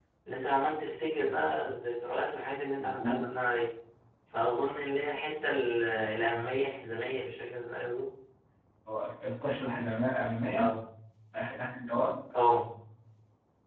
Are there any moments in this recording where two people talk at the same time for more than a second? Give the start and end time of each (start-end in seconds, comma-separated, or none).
none